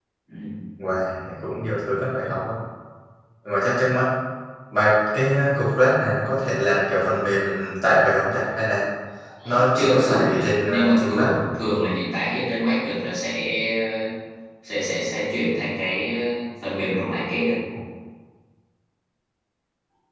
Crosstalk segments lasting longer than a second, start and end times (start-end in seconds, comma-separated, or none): 9.4-11.4